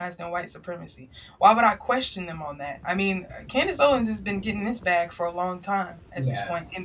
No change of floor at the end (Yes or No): Yes